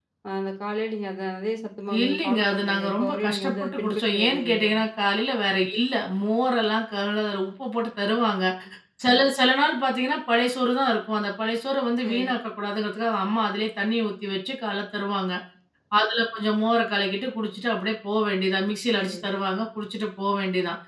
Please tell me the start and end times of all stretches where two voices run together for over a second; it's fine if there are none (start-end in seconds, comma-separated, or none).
2.0-4.7